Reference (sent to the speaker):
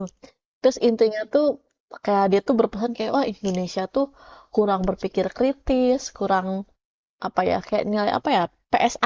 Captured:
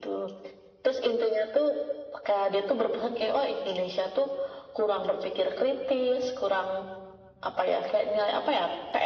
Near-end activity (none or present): none